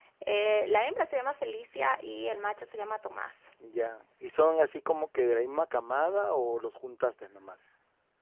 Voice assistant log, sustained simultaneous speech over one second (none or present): none